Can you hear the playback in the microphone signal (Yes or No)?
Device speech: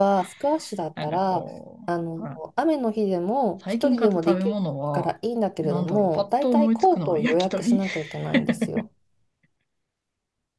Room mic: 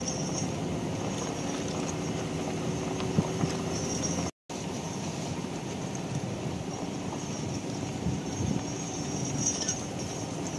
No